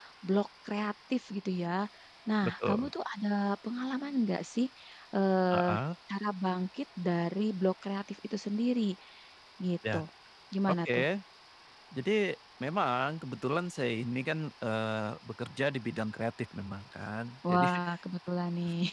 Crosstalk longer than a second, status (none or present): none